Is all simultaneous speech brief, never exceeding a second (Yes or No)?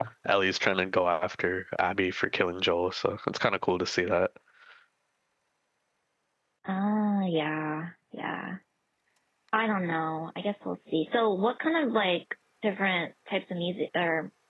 Yes